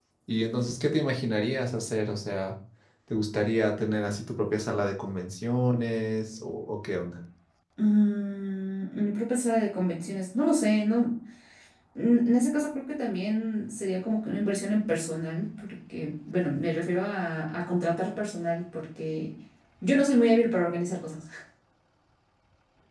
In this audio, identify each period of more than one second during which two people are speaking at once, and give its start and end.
none

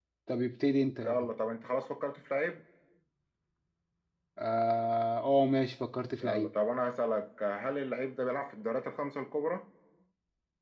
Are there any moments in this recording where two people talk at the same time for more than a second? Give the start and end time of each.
none

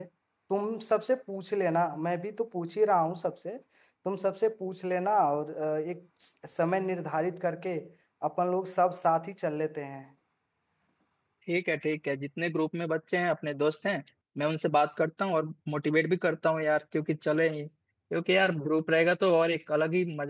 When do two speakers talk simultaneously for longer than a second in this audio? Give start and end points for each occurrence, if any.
none

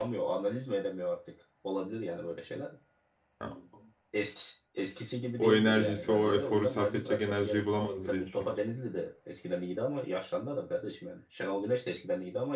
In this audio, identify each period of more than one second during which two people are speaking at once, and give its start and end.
5.4-8.6

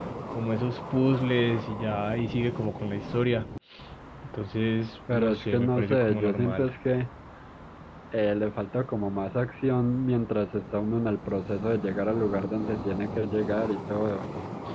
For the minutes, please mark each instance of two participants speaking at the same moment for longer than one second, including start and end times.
5.1-6.7

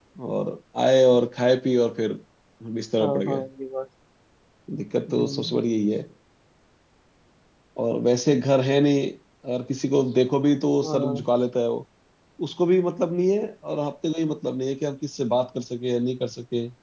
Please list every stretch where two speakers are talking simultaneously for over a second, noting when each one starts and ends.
none

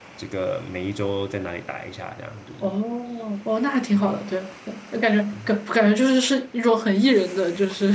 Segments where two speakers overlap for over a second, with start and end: none

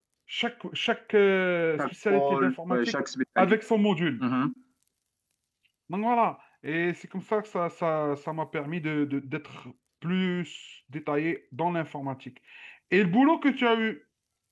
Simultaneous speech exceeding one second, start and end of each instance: 1.8-3.0

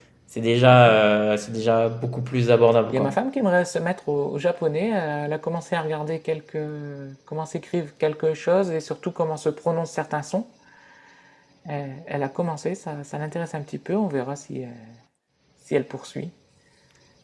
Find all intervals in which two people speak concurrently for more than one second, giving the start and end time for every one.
none

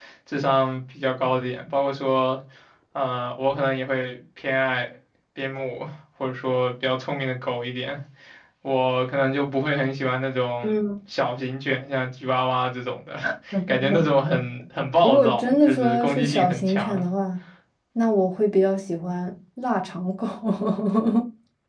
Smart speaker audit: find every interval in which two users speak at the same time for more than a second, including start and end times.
15.0-17.0

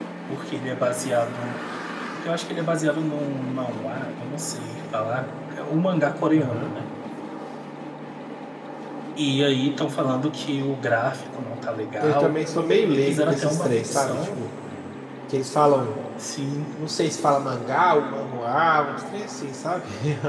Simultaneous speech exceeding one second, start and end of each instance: 13.0-14.4

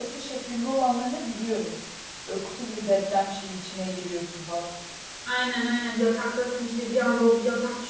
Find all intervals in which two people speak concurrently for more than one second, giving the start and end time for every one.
none

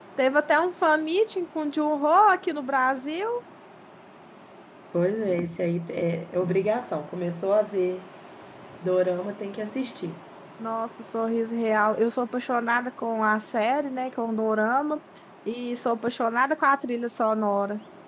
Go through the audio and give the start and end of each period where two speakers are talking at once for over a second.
none

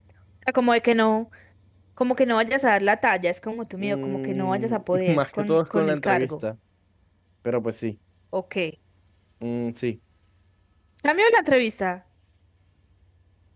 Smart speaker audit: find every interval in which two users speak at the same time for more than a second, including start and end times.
3.8-6.3

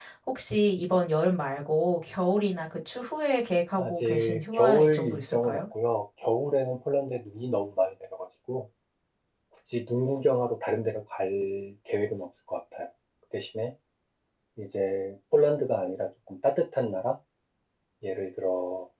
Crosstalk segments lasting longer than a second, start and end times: 3.8-5.6

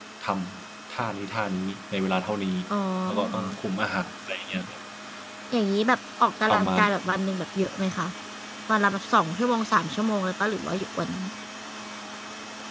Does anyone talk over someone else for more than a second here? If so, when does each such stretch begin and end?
none

